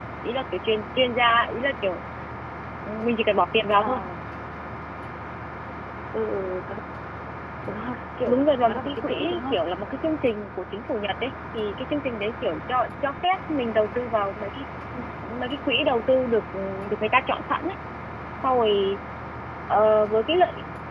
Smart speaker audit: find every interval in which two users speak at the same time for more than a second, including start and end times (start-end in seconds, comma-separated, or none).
8.2-9.6